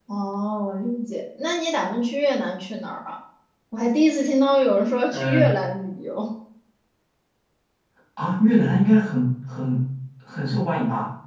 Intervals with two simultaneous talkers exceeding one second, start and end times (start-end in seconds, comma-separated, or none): none